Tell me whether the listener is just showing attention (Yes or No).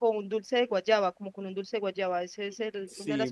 No